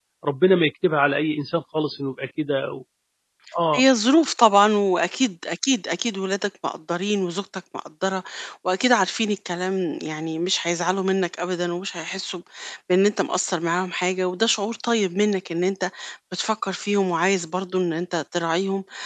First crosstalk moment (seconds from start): none

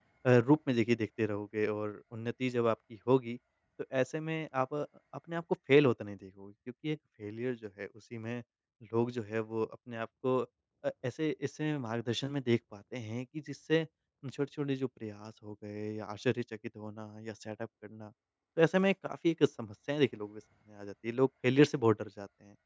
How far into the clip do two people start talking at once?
none

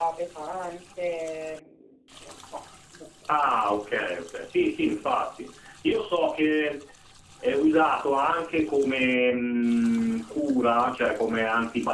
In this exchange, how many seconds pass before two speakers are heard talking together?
none

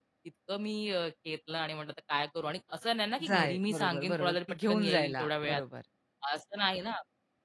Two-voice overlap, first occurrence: 3.2 s

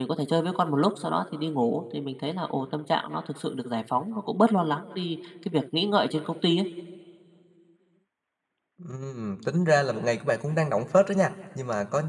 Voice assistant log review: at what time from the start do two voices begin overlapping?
none

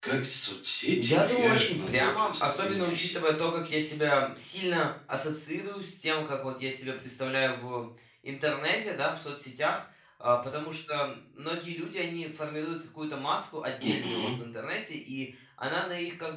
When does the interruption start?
0.9 s

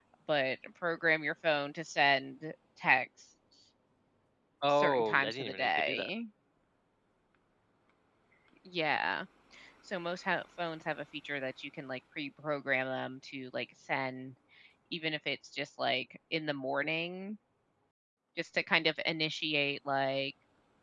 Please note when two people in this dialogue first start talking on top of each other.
4.8 s

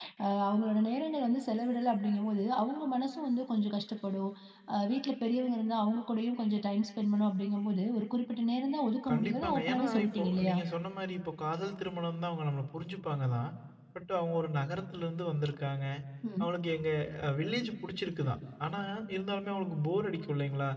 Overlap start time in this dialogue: 9.1 s

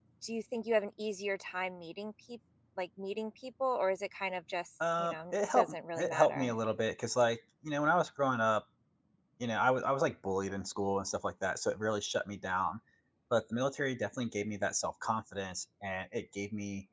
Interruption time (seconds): 4.8 s

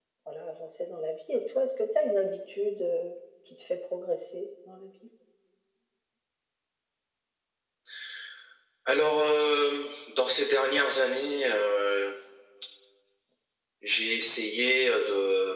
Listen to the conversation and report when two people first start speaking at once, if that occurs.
none

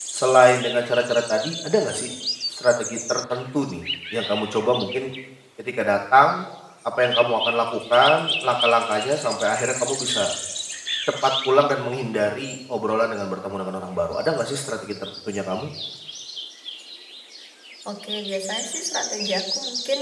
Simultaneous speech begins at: none

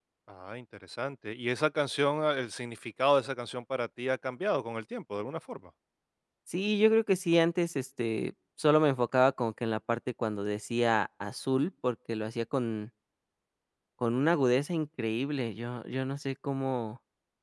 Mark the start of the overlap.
none

